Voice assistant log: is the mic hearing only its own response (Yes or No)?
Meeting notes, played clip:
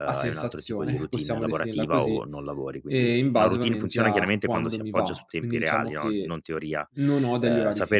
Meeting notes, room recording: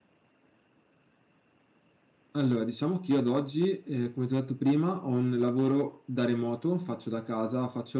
No